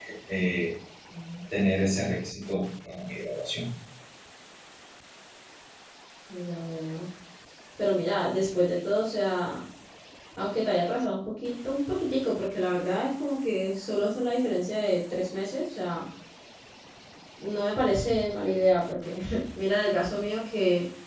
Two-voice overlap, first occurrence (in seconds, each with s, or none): none